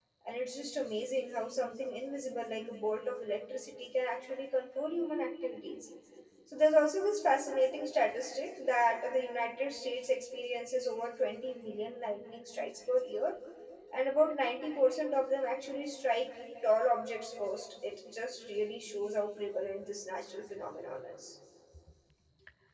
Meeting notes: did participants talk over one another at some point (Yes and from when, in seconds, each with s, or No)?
No